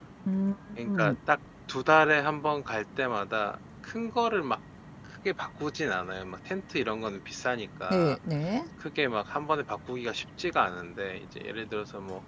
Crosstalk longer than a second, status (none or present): none